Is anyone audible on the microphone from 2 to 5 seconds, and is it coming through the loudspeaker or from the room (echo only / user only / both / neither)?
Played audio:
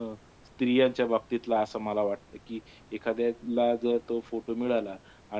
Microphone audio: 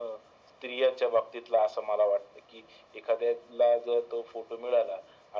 echo only